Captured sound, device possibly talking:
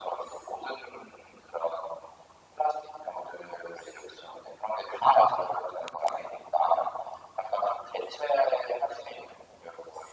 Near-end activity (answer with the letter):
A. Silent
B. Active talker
A